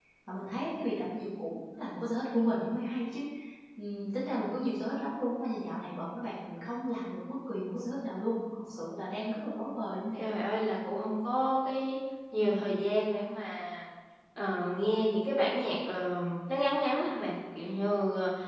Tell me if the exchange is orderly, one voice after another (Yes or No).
Yes